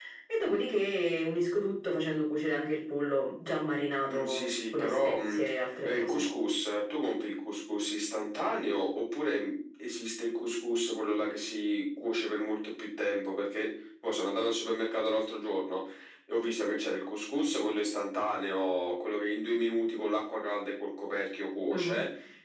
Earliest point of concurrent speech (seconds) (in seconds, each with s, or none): 4.1 s